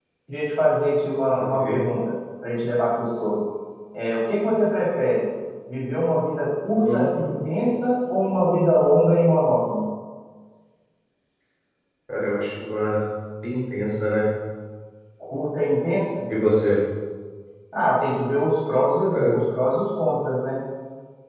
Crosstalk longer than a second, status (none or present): none